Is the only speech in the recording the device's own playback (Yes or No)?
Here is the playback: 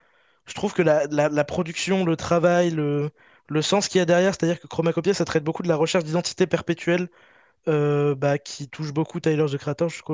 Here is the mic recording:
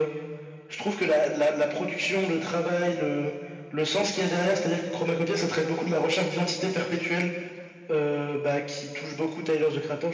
Yes